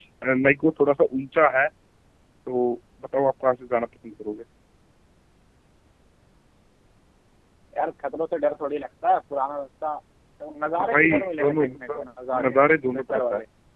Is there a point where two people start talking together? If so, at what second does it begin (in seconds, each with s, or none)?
10.8 s